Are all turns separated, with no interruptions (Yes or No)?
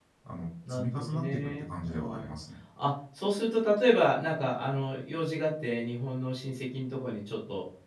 No